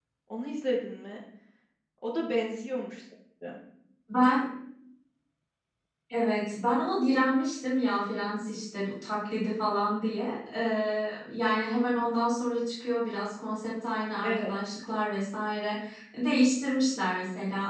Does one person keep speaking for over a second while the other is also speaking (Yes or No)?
No